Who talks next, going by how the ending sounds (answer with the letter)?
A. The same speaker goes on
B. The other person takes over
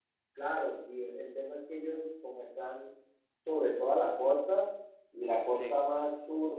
A